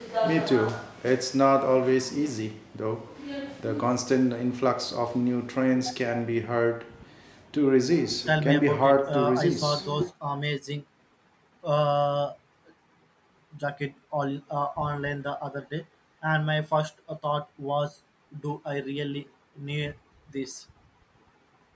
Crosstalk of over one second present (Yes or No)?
Yes